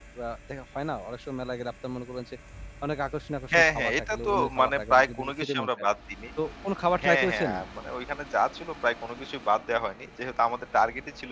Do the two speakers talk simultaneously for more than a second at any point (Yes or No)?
Yes